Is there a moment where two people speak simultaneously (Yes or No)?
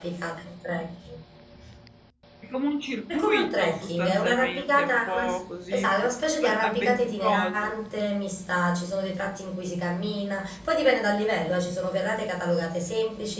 Yes